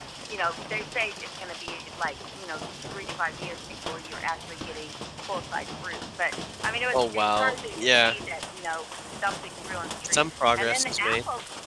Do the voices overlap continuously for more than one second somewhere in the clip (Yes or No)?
Yes